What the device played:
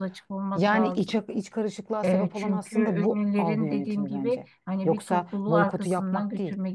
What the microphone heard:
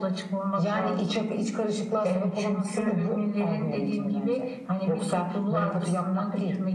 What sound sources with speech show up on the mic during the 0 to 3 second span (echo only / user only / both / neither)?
echo only